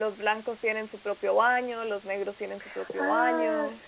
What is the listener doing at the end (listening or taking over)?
taking over